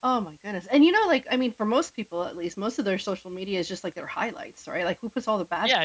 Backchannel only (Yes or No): No